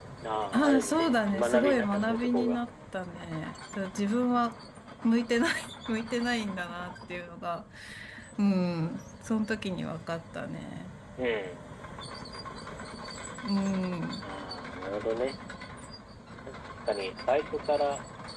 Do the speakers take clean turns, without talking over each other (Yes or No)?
No